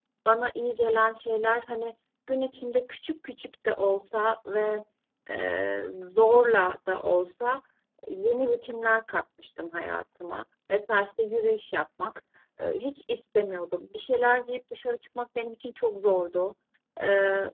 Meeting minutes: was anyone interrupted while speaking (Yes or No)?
No